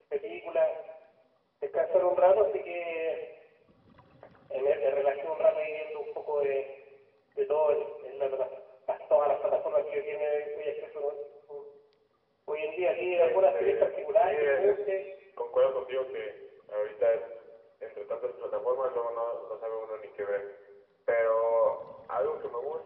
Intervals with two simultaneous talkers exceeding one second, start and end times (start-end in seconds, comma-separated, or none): 13.2-14.8